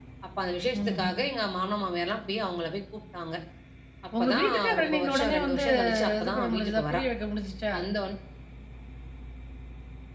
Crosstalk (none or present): present